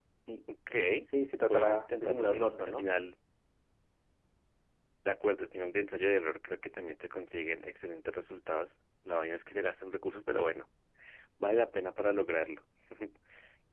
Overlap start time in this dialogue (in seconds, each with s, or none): 1.5 s